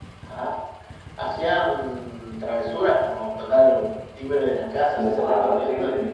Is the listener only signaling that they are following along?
No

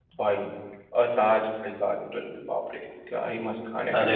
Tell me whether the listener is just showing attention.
No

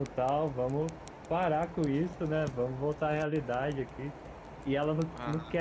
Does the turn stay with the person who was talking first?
Yes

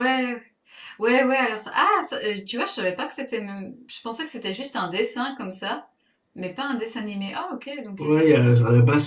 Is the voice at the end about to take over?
Yes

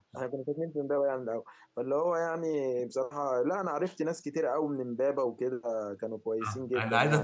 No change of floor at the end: No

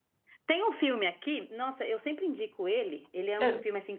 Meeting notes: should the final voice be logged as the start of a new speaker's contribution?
No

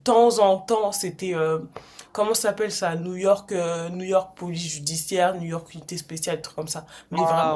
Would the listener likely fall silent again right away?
No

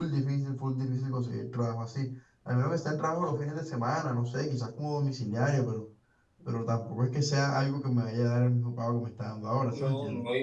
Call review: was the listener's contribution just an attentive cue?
No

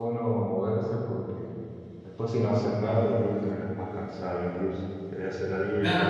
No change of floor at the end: No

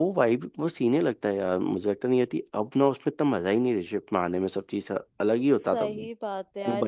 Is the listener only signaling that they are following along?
No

